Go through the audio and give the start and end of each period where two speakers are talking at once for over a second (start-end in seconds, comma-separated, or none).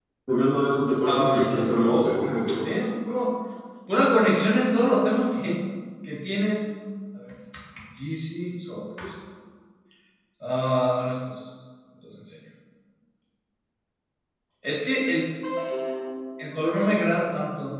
1.1-2.8